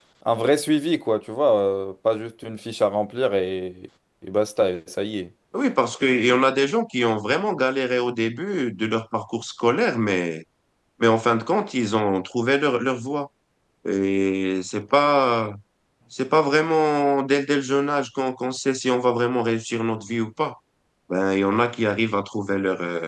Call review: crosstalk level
none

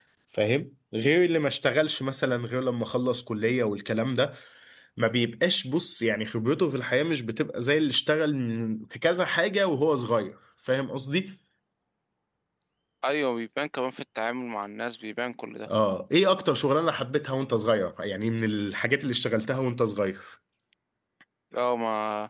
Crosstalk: none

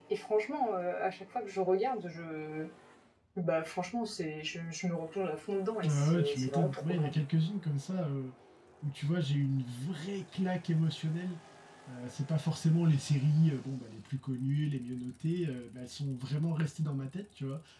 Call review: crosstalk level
present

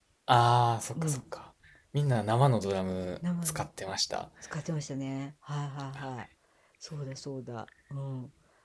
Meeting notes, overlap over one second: none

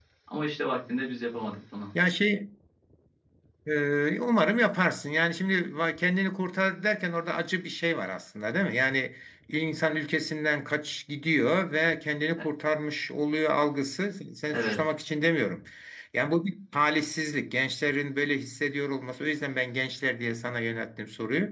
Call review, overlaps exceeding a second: none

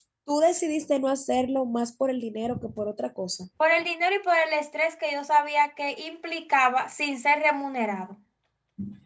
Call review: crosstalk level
none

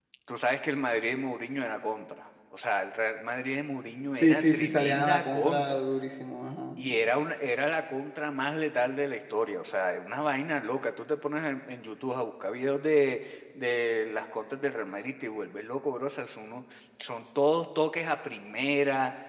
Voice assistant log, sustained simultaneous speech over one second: present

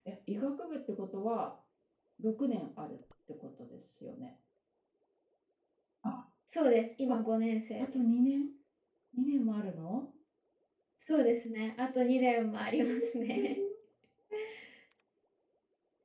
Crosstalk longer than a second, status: none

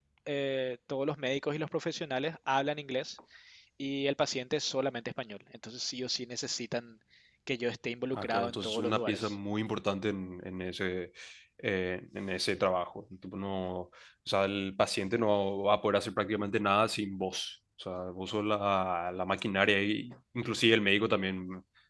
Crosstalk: present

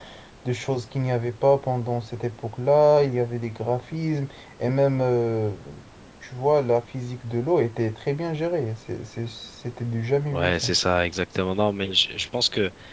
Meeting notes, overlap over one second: none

